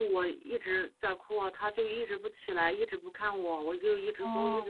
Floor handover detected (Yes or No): No